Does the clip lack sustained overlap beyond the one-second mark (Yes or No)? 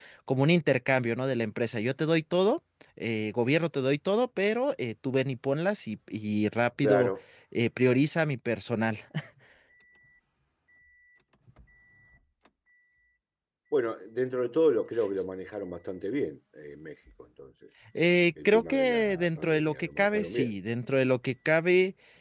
No